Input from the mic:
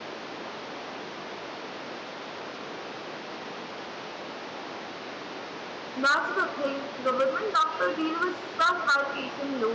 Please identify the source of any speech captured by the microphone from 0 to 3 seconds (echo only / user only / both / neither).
neither